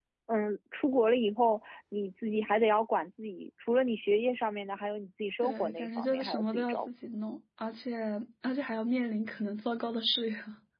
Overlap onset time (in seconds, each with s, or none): 5.4 s